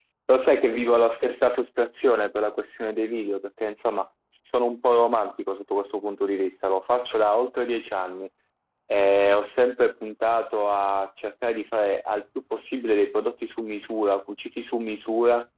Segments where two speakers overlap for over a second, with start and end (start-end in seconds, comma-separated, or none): none